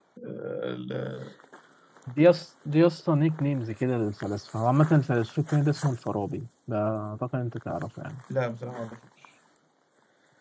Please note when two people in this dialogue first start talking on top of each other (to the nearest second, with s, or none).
none